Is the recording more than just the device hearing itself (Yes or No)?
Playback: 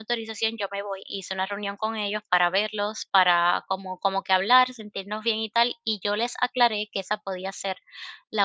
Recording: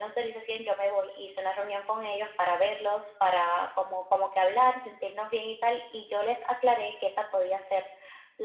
No